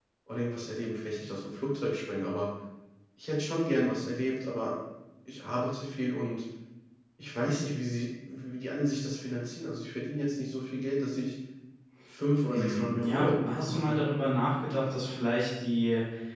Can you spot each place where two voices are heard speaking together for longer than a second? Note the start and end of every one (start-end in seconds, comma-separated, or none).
12.5-14.0